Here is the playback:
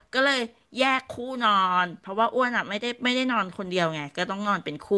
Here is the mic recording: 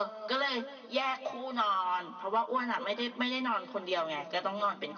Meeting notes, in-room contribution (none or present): none